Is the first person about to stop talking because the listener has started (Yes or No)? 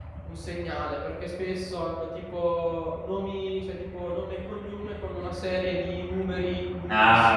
Yes